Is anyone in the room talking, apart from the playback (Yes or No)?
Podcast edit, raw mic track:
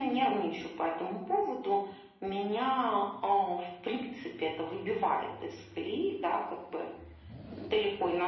No